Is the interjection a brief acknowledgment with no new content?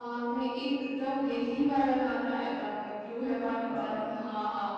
Yes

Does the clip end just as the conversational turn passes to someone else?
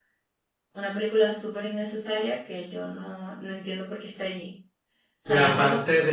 Yes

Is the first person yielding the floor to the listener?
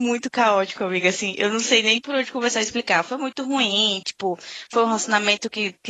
No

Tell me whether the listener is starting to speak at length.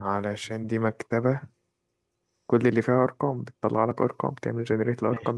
Yes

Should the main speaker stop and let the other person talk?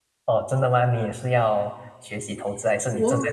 Yes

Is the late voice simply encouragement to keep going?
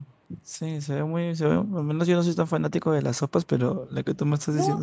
No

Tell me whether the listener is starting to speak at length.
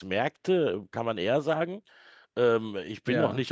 No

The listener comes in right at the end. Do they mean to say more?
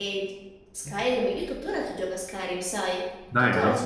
No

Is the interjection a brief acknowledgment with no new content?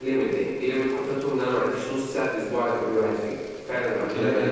No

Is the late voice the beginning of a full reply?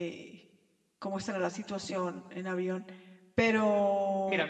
Yes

